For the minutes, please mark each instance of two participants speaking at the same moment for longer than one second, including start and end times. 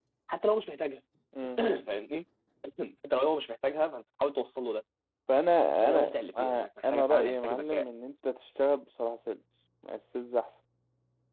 5.9-7.8

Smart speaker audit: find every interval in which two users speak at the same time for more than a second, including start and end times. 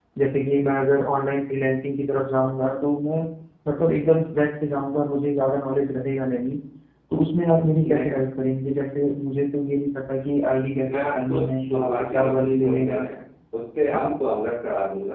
10.9-13.0

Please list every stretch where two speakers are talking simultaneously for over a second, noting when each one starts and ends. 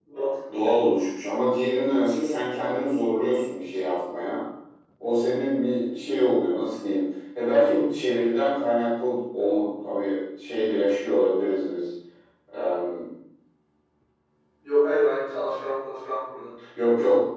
none

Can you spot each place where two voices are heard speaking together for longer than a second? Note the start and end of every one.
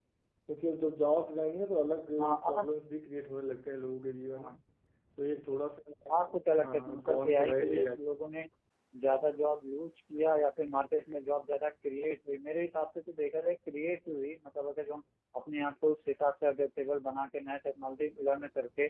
6.1-7.9

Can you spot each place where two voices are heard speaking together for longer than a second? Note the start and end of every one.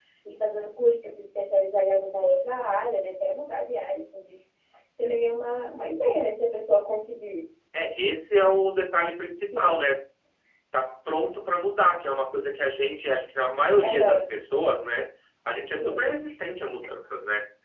none

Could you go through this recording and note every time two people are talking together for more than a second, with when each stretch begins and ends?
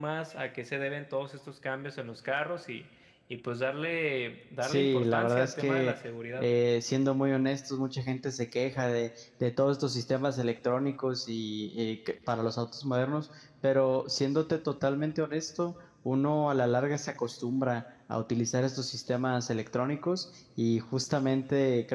4.6-5.9

